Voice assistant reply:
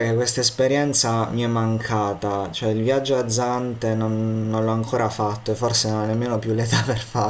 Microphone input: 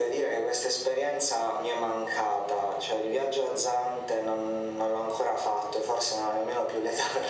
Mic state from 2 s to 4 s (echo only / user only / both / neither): echo only